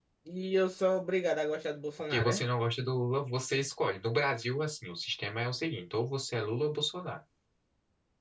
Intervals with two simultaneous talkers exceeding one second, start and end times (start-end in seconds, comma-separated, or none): none